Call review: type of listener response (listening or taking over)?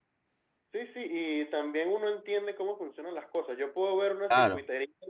listening